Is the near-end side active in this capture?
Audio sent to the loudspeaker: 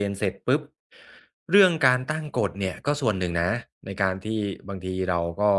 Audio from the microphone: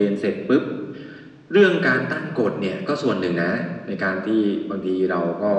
No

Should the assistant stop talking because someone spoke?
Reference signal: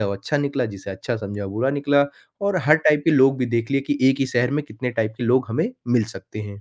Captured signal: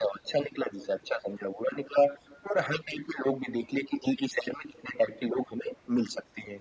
No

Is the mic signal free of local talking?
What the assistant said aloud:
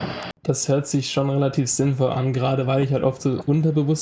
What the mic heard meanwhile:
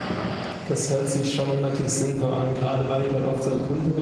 Yes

